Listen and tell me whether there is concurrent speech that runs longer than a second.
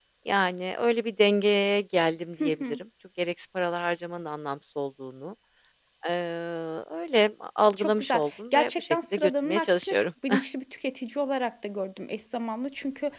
Yes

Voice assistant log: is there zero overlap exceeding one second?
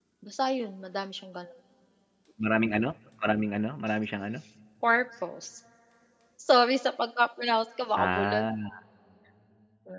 Yes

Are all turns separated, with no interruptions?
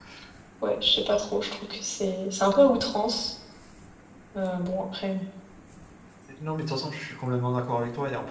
Yes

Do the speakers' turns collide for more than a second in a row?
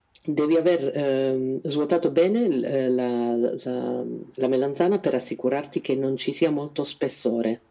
No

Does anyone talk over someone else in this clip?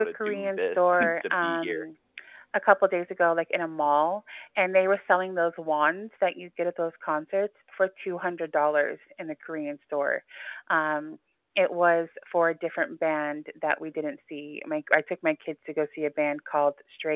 Yes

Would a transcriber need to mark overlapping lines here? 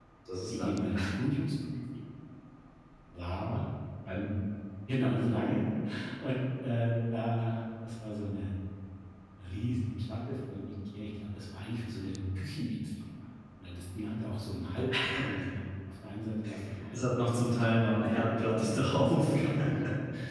Yes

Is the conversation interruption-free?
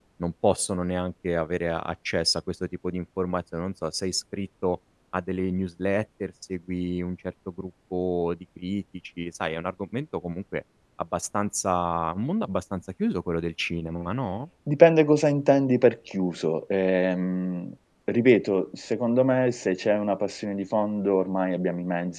Yes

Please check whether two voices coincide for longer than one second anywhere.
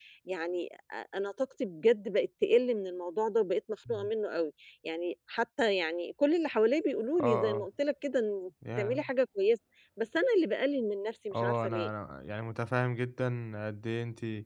No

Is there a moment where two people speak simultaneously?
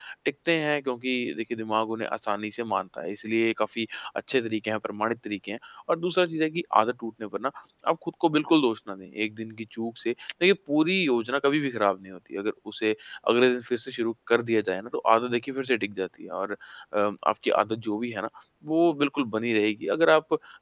No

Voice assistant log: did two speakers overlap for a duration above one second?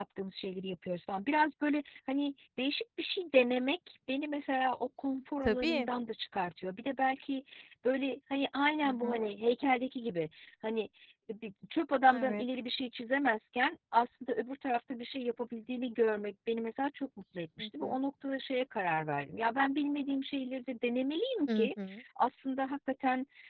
No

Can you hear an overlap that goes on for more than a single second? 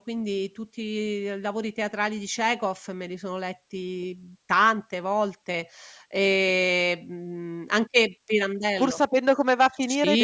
No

